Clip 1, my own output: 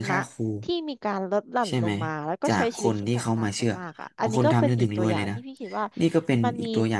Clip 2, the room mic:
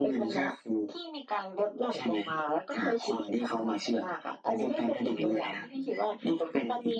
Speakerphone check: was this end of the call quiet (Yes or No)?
No